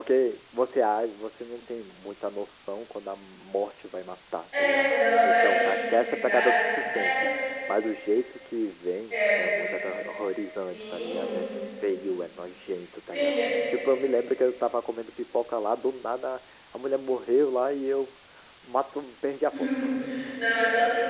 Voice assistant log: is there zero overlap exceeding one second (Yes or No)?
No